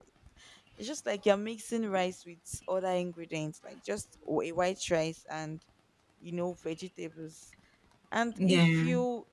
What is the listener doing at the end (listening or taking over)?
listening